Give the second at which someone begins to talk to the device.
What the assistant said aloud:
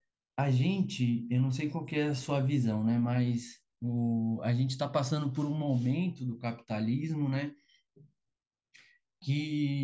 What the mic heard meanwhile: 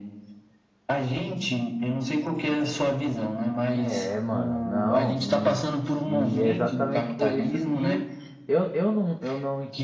3.7 s

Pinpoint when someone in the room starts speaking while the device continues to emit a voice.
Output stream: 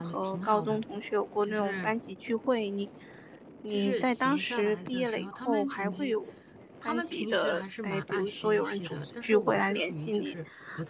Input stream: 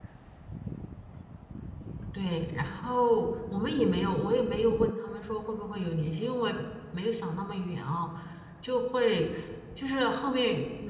2.1 s

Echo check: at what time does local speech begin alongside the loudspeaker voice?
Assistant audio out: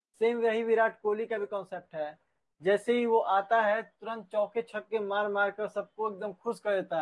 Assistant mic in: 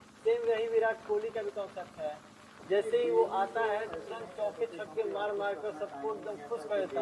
2.7 s

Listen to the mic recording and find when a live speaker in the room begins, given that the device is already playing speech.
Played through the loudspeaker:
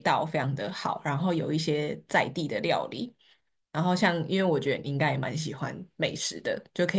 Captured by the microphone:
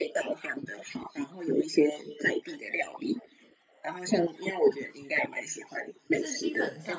6.1 s

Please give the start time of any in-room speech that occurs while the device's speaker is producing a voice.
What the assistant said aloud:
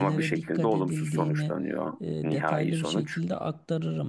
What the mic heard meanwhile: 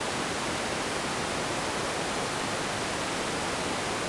none

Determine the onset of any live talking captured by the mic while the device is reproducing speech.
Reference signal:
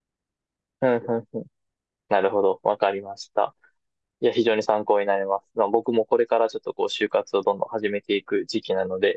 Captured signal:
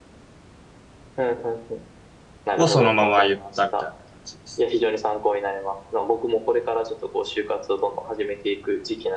2.5 s

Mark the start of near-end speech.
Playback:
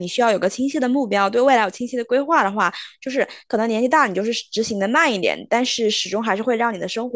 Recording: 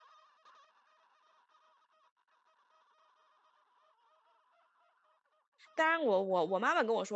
5.7 s

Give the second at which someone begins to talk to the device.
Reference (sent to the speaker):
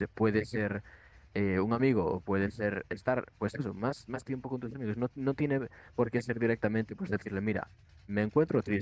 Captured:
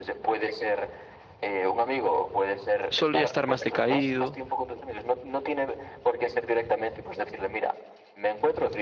2.9 s

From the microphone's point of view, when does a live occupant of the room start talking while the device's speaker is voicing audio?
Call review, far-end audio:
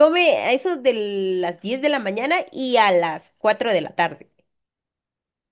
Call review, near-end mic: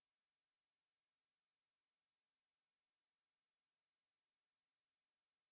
none

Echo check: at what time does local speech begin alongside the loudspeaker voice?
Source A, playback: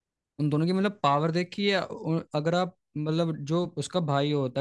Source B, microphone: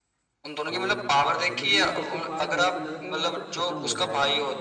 0.7 s

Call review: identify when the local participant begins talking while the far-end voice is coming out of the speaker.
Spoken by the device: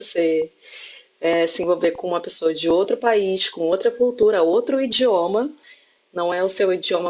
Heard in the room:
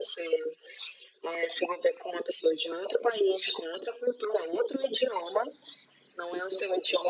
none

